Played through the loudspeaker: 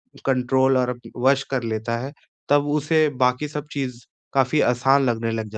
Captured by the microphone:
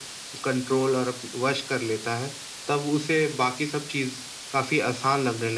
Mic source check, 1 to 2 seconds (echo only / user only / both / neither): echo only